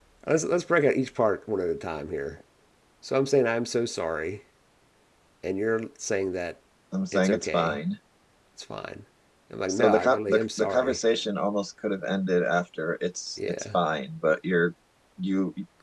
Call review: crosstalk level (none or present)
present